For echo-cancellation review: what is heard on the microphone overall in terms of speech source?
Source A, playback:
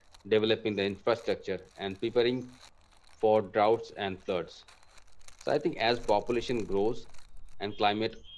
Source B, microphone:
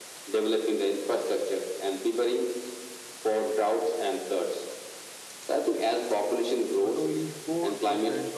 both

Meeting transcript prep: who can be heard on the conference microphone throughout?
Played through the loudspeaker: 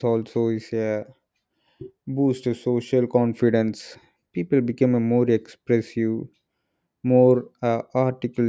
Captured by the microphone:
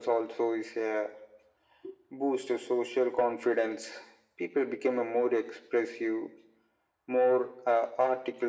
echo only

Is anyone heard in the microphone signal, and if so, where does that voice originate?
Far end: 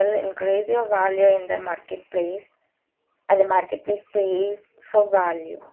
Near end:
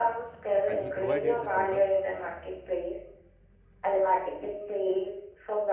both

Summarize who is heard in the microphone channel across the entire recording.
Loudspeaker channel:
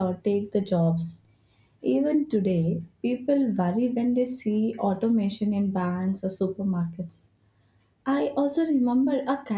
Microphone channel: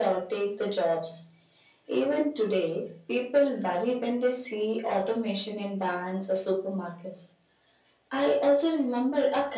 echo only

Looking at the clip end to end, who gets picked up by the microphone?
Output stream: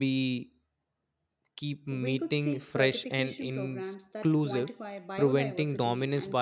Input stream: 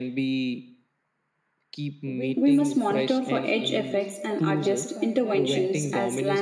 both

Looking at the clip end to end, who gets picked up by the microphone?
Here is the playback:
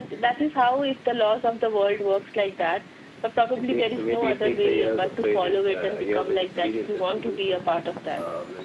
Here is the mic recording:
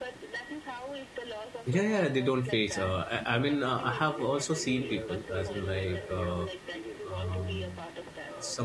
both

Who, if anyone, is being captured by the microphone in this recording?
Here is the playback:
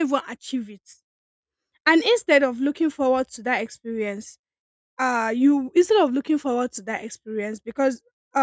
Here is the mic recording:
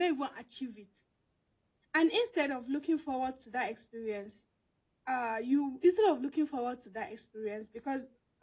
echo only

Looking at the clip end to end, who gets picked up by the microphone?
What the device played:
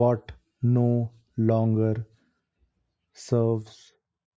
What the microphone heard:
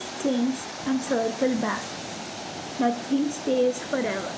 user only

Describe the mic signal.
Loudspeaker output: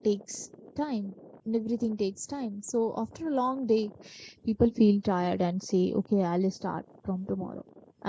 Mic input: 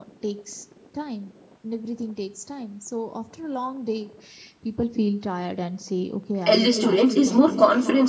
both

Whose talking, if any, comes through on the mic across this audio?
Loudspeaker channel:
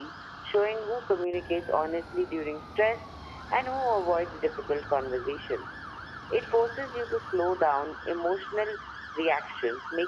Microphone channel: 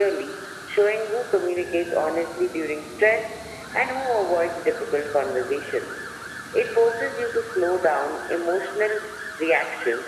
echo only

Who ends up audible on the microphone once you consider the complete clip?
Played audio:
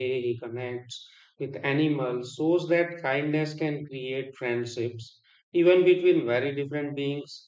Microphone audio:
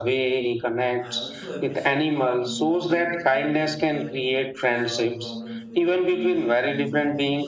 both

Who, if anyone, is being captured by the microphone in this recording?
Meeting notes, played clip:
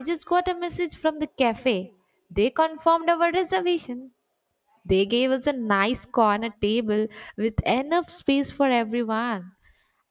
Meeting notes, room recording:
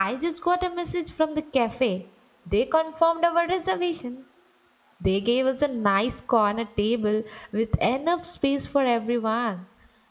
echo only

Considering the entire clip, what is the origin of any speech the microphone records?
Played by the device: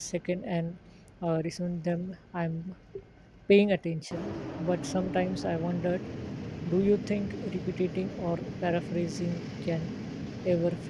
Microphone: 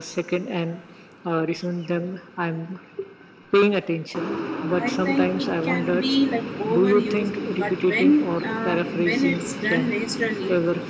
both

